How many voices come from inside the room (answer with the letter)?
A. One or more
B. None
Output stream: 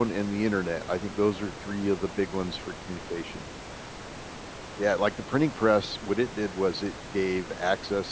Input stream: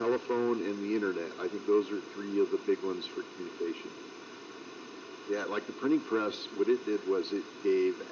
B